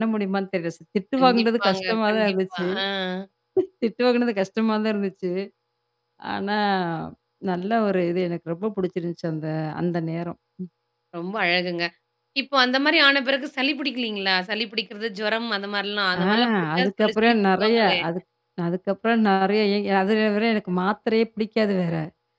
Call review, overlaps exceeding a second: present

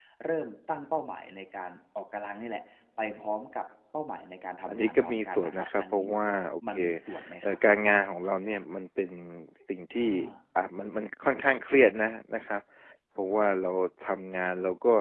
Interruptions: present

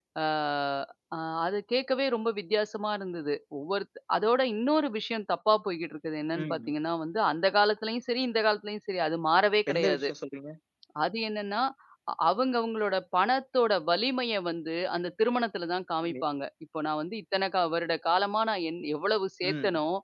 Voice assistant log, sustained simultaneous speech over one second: none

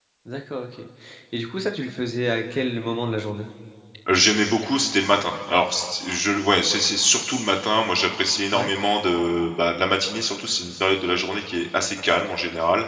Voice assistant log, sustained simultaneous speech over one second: none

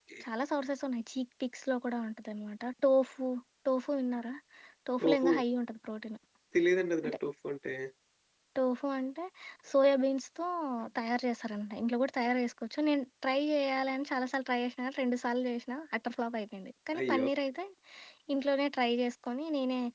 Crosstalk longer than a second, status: none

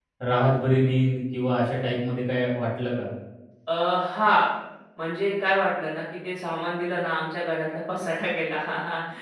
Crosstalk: none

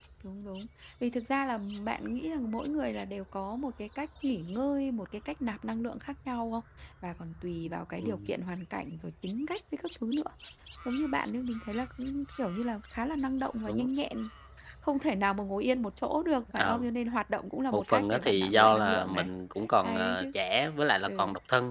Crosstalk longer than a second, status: present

